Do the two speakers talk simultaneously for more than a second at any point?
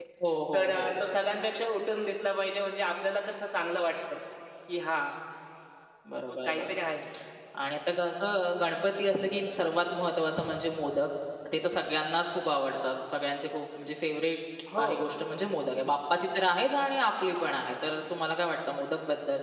No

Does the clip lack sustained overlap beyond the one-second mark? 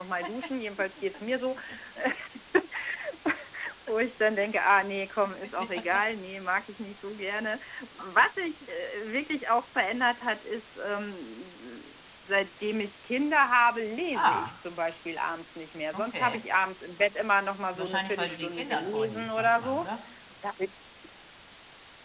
No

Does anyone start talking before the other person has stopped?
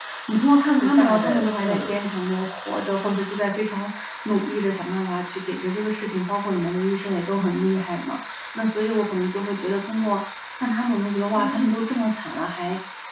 Yes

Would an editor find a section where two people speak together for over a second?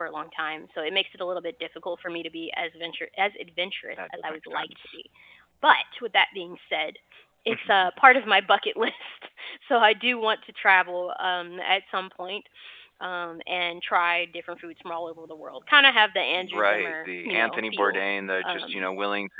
Yes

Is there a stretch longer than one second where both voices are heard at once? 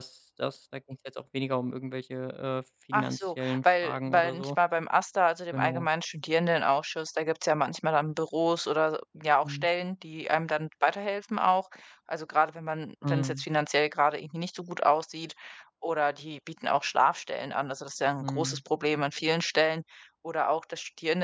Yes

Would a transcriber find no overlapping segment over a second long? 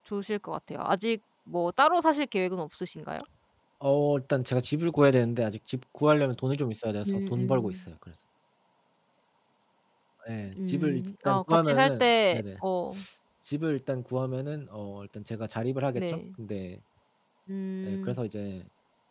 No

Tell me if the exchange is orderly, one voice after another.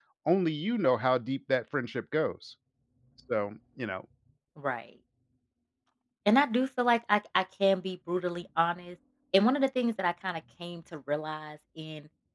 Yes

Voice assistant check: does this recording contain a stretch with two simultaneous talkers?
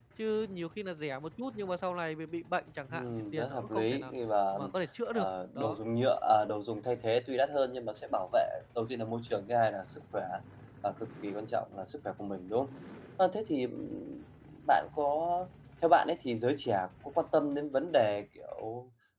Yes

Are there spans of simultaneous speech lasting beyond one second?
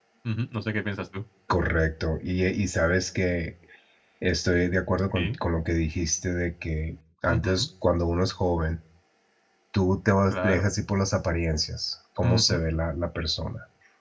No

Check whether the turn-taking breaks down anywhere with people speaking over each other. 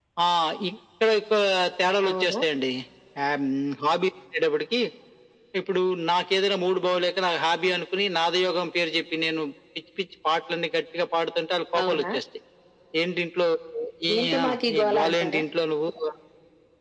Yes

